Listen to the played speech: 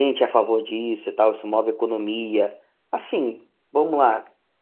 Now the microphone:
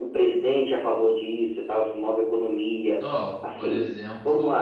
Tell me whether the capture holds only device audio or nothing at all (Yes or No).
No